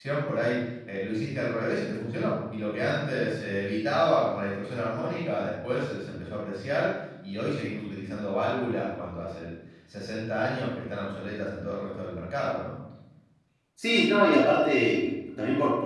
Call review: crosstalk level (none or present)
none